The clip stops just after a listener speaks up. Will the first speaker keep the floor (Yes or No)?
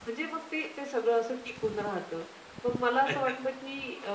Yes